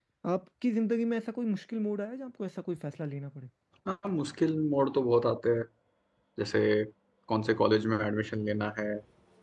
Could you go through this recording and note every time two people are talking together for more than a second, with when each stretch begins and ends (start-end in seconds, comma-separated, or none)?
none